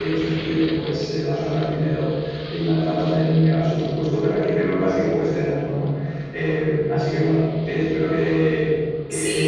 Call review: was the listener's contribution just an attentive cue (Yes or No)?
No